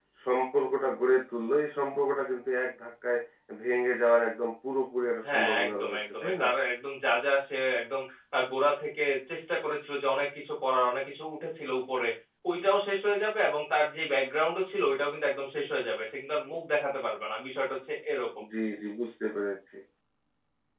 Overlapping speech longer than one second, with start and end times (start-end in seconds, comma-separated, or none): 5.3-6.5